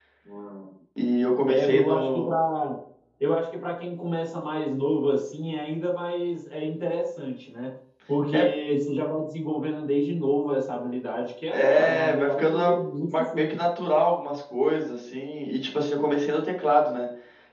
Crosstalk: present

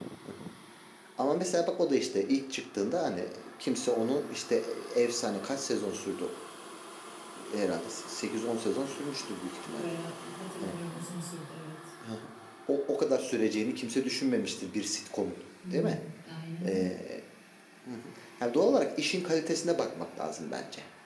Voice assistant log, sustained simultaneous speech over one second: none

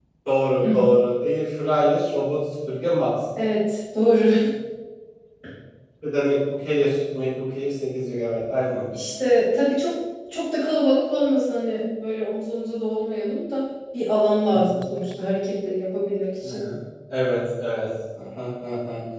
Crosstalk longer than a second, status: none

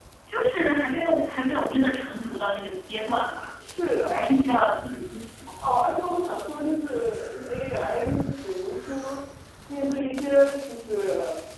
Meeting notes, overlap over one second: none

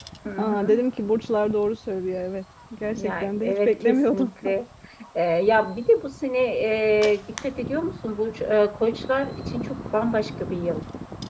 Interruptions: present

